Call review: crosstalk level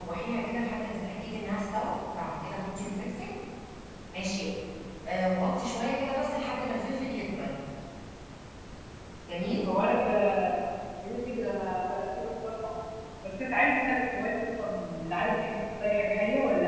none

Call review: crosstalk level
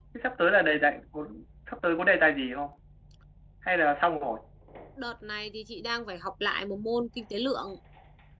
none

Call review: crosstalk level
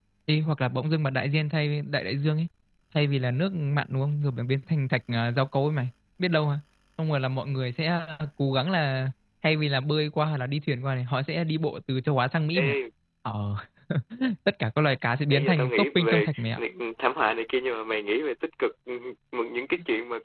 present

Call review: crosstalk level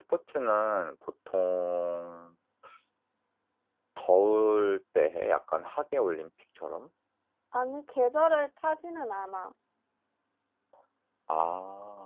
none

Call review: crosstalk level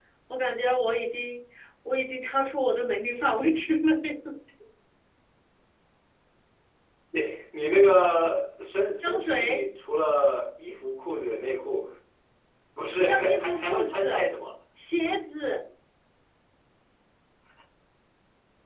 present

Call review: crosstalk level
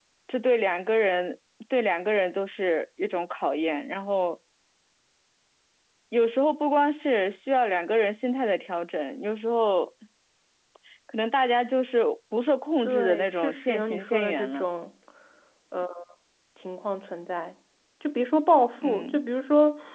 present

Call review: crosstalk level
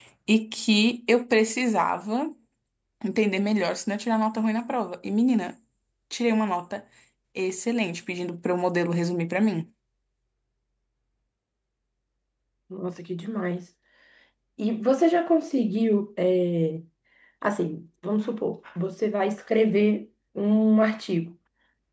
none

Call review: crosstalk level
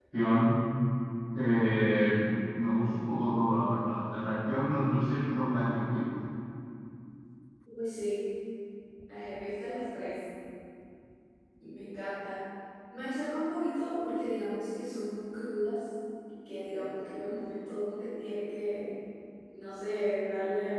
none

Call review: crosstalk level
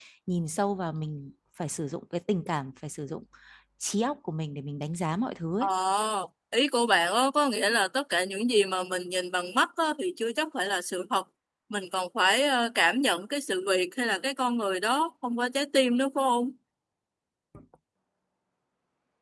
none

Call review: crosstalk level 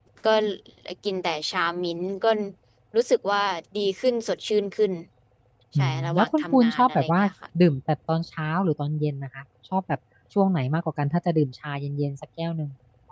present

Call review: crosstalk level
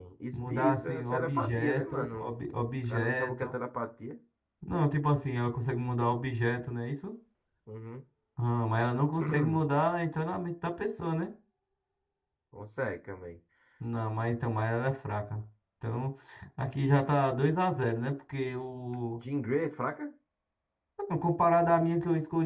present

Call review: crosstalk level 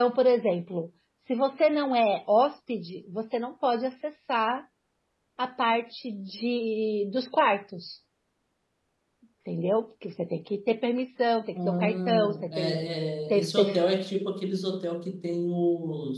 present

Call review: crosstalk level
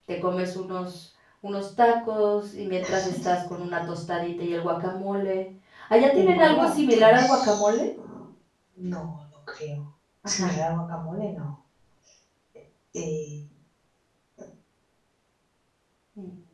present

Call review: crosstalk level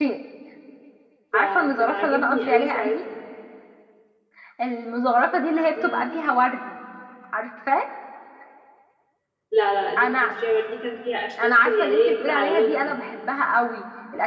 present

